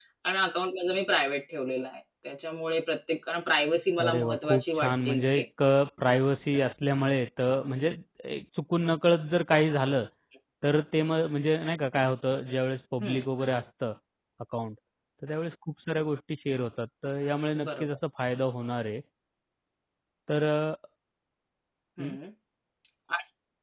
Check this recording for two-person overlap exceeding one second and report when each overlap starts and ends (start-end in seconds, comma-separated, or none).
4.0-5.4